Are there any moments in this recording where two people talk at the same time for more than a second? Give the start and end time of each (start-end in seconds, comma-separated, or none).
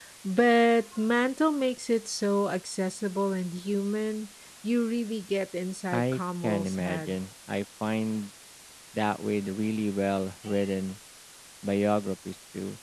5.9-7.2